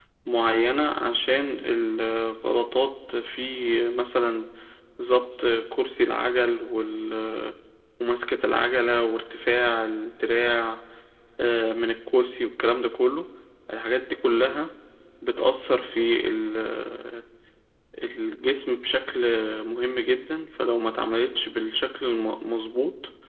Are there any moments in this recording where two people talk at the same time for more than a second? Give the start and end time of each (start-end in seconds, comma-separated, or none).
none